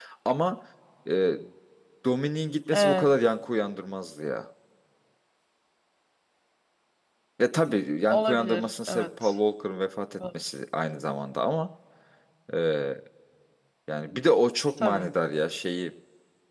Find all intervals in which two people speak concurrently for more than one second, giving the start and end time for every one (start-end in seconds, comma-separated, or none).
8.1-9.3